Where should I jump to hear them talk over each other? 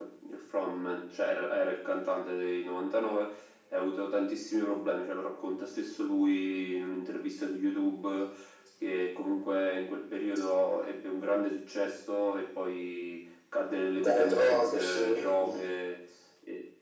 14.0 s

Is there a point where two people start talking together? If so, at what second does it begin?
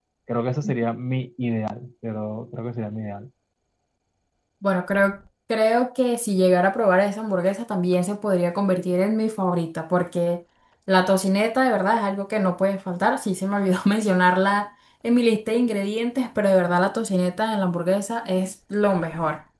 none

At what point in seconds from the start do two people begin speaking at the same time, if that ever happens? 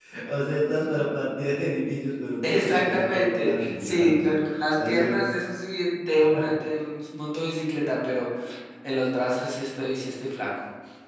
2.4 s

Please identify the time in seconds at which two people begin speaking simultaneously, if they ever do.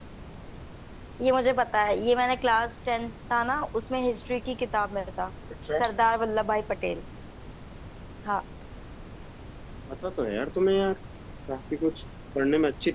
none

